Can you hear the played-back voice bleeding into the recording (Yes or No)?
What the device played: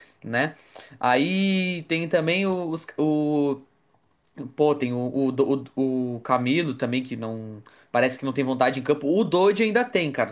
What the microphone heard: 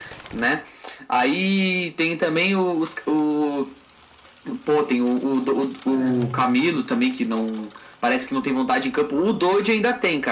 Yes